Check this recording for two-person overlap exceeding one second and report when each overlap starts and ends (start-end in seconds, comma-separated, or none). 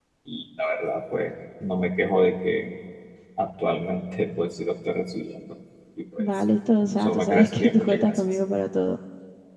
7.0-8.2